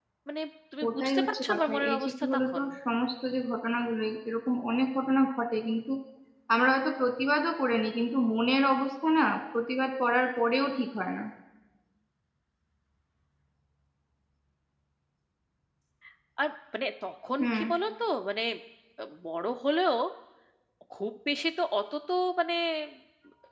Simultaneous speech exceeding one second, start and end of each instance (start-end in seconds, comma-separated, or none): 0.9-2.6